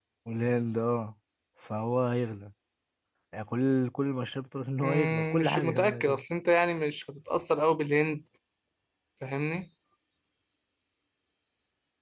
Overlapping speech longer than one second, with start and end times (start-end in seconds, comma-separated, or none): 4.8-6.2